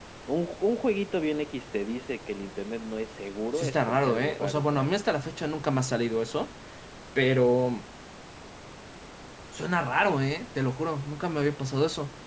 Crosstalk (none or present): present